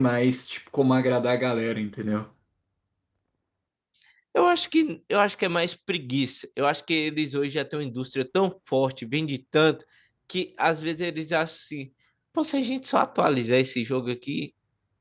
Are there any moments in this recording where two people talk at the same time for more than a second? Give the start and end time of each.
none

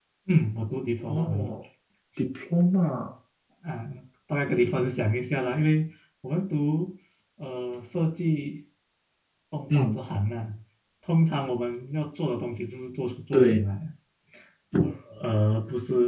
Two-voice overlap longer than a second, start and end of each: none

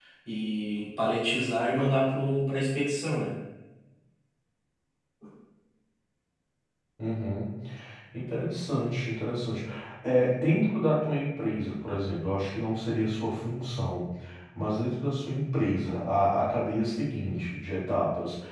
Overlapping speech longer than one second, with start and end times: none

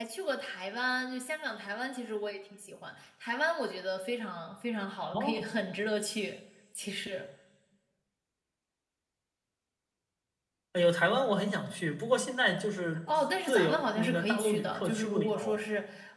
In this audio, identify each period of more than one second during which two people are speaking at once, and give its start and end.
13.5-15.6

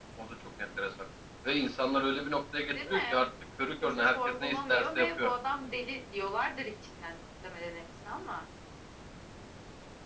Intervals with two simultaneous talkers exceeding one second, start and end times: 3.8-5.3

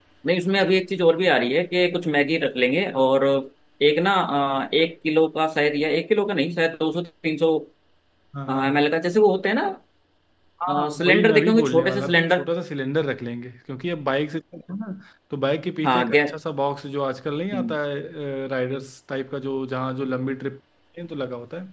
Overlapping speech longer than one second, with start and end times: 10.7-12.5

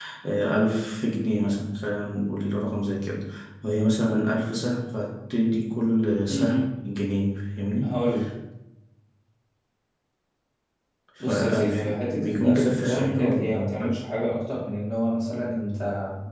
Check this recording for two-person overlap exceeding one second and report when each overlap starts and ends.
11.2-13.9

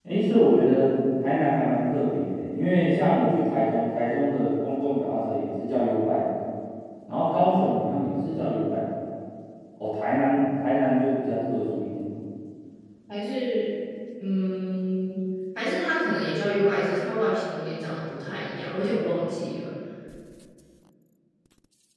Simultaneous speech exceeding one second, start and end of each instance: none

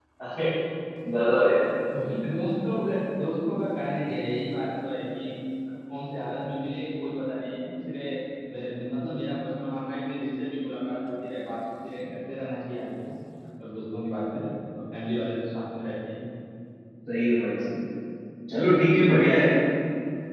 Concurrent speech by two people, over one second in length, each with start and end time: none

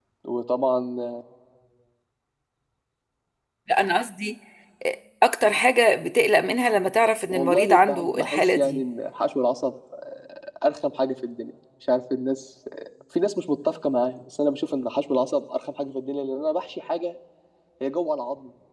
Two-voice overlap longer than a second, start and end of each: 7.3-8.8

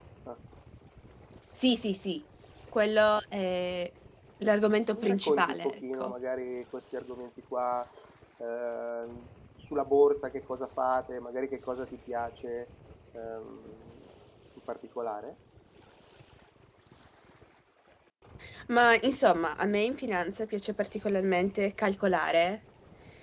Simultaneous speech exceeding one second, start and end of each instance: 4.9-6.1

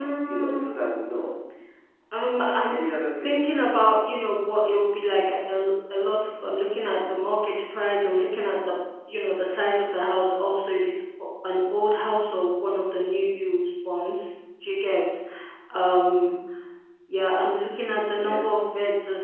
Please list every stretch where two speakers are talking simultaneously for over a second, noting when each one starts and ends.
none

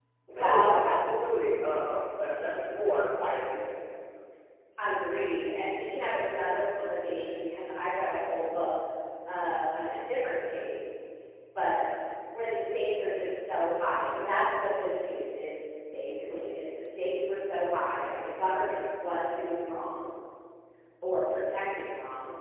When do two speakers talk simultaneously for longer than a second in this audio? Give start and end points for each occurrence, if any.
none

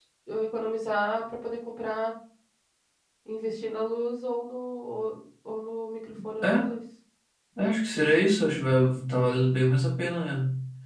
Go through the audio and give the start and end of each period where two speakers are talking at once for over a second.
none

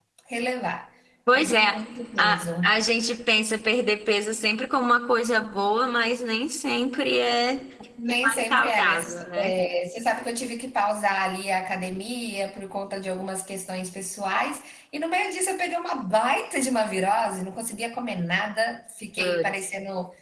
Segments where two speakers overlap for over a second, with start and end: 8.2-9.5

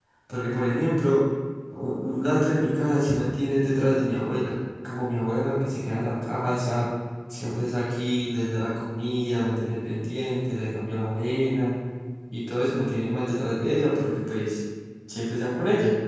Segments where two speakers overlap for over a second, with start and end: none

